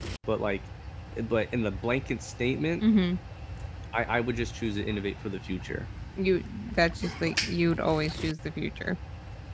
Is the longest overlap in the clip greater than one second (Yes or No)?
No